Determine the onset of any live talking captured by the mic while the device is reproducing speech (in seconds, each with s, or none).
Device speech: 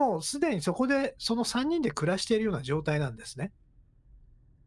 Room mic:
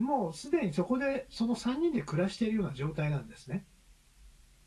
none